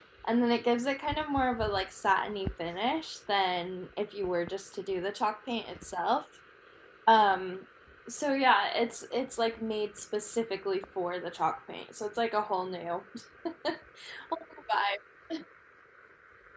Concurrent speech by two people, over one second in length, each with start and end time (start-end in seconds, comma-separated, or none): none